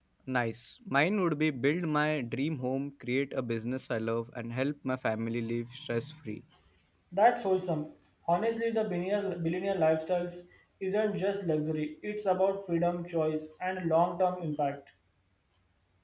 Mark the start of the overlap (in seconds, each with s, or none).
none